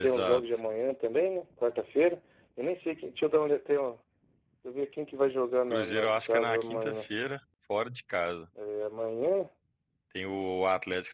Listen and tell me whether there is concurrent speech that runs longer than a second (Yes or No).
Yes